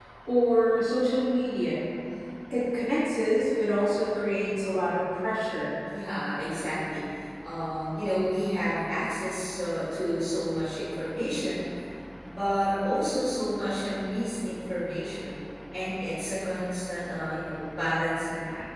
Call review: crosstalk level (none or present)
none